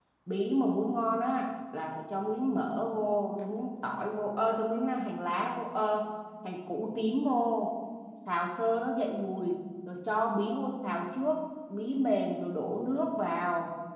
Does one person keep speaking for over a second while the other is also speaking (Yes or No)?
No